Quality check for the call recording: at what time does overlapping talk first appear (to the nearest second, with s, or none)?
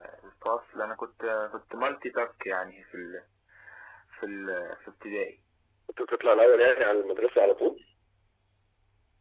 none